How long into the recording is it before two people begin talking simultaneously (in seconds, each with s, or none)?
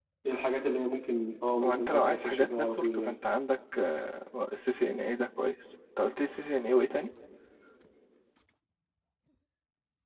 1.6 s